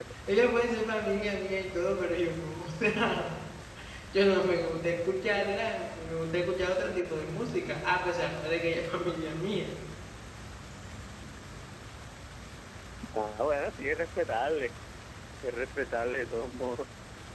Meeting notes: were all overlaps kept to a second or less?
Yes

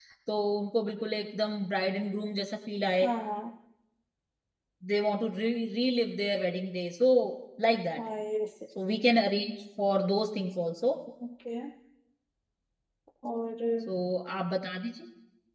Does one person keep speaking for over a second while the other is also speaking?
No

